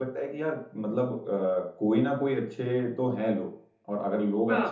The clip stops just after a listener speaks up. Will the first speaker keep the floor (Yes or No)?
Yes